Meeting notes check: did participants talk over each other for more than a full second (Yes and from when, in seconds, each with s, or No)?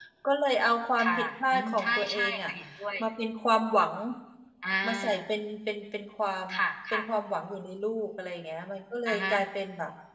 Yes, from 1.0 s